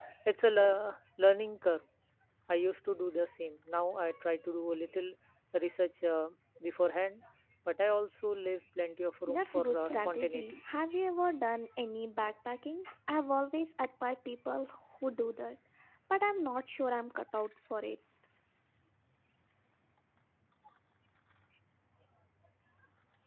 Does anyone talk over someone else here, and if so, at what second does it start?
9 s

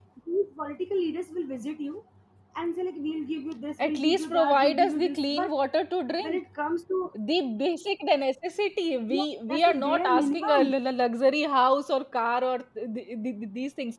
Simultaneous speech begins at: 4 s

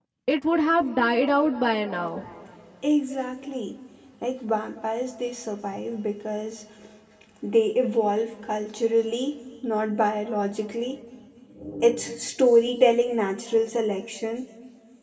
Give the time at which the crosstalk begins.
none

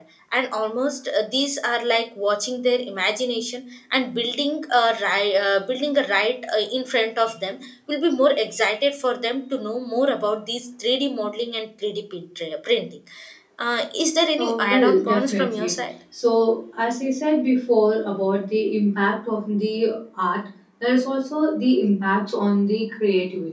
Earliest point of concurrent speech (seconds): 14 s

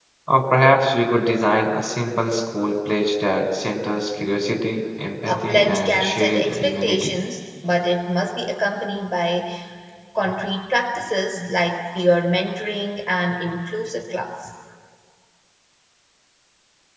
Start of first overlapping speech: 5 s

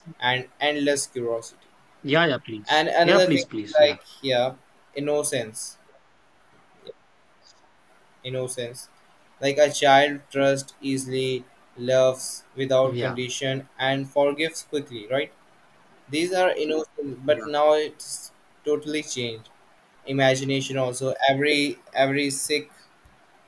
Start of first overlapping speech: 3 s

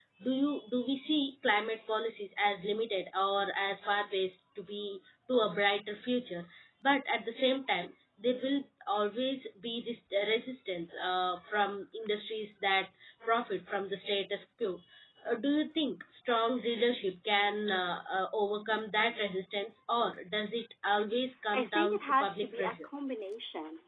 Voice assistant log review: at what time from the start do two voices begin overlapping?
22 s

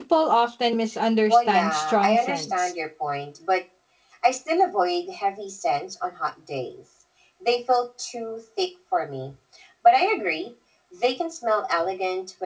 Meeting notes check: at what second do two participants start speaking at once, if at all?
1 s

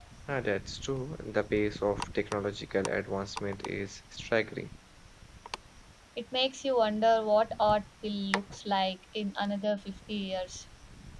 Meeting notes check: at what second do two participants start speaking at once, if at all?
none

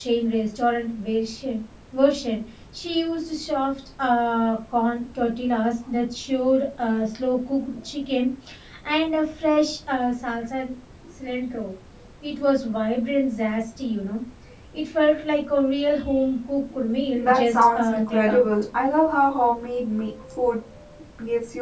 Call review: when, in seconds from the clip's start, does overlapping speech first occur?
17 s

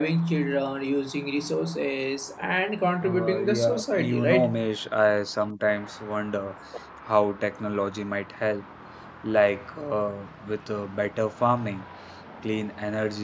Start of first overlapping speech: 3 s

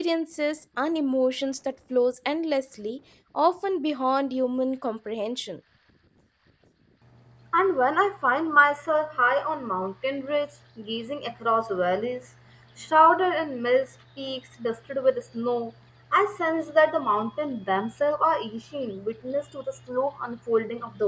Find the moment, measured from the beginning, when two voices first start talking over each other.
none

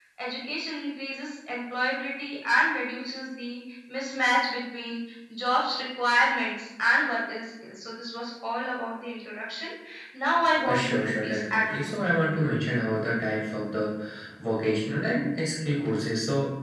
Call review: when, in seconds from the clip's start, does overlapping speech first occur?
11 s

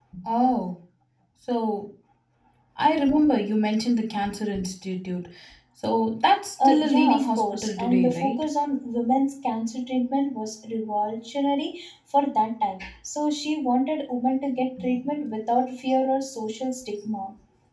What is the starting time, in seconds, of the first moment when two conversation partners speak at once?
7 s

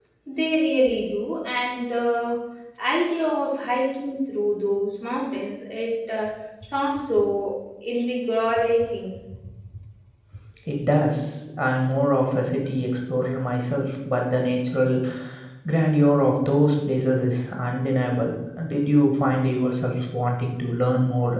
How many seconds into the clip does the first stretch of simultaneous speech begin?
none

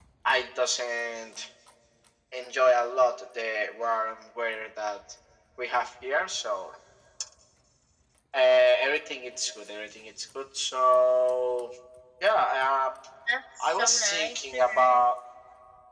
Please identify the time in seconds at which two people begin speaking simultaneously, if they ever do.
14 s

